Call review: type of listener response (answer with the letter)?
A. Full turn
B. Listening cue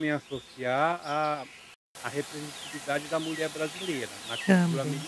B